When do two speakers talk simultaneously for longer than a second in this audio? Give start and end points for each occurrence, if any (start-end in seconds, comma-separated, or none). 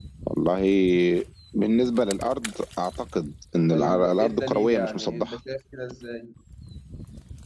3.7-5.4